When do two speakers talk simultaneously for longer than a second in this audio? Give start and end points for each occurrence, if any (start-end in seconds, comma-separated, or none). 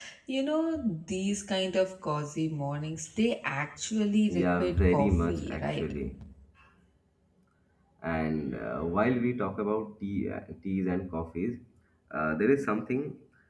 4.4-5.9